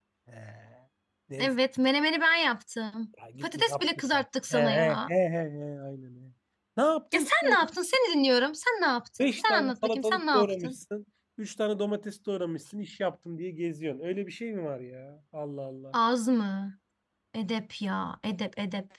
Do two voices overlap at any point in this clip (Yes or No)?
Yes